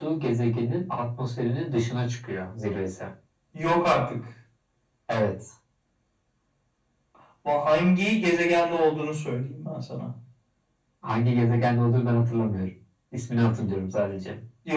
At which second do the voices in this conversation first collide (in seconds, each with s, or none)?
none